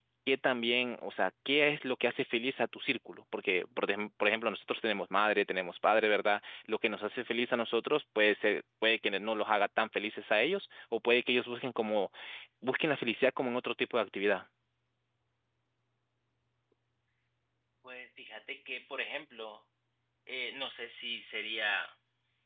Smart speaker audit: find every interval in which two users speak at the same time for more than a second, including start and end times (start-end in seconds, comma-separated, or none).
none